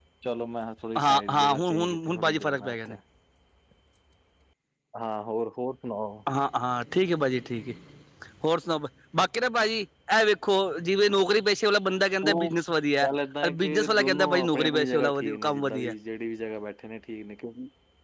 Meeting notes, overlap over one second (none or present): present